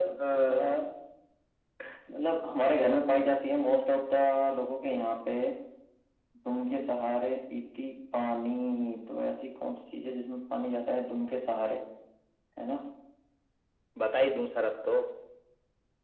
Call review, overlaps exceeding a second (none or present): none